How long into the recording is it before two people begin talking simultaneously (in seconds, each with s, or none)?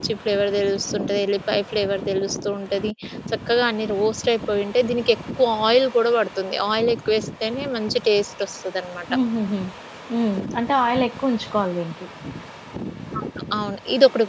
none